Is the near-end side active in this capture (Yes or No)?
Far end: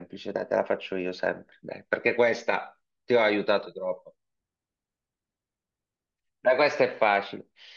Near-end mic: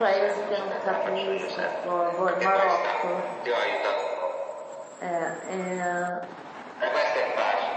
Yes